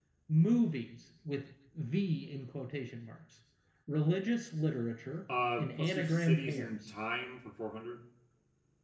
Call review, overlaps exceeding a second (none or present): present